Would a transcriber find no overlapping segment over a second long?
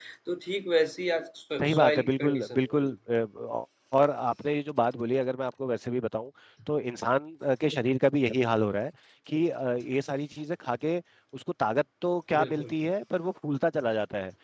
No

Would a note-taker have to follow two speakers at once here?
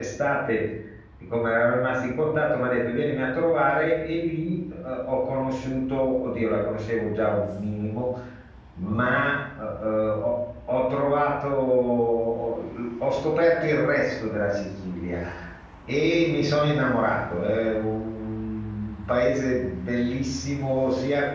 No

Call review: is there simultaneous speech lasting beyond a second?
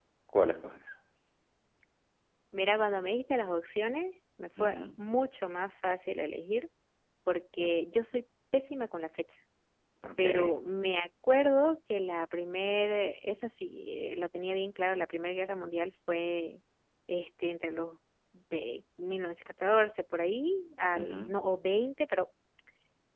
No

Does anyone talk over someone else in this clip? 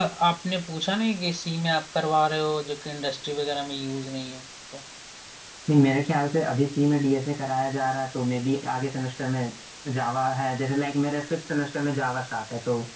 No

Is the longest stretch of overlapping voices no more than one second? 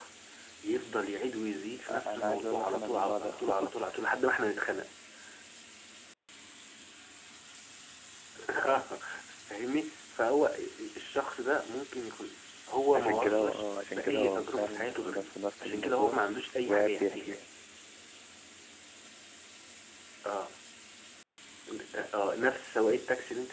No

